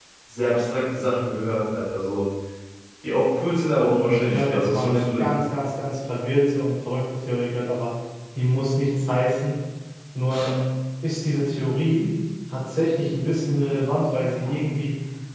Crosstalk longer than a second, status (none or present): present